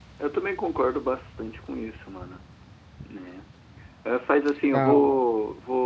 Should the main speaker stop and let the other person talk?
No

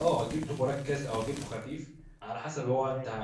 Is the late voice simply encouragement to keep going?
Yes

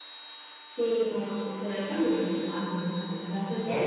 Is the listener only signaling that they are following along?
No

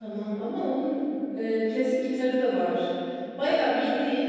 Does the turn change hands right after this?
No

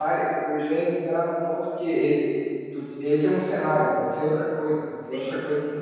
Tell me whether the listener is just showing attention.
No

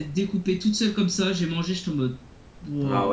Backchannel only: No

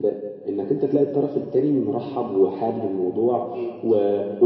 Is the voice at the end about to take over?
No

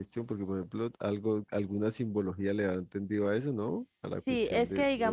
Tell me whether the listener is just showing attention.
No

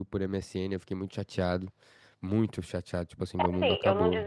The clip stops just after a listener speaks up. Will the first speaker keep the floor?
No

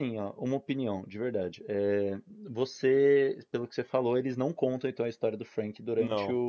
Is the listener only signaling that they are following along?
Yes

